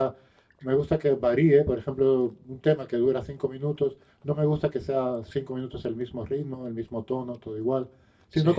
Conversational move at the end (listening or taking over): listening